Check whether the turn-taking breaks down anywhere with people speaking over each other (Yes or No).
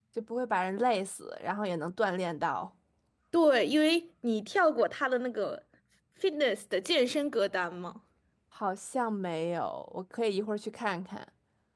No